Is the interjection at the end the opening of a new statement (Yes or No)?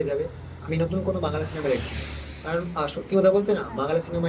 No